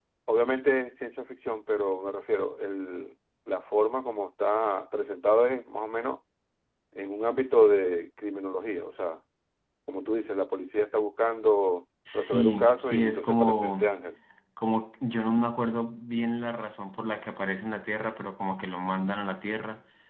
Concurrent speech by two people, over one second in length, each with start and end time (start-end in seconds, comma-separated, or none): 12.1-13.9